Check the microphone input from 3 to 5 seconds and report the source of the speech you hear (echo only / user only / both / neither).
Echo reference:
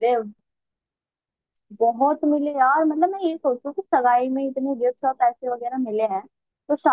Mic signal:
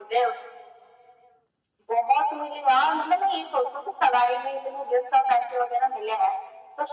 echo only